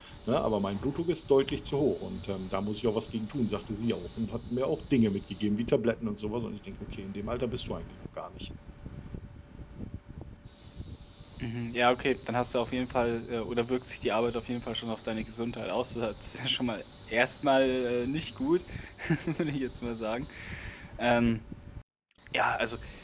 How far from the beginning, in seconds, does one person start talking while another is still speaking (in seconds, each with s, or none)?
none